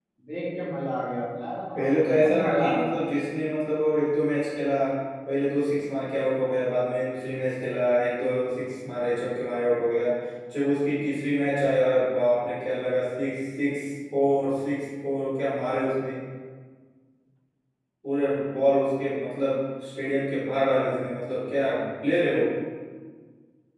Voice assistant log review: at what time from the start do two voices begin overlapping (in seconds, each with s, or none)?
1.8 s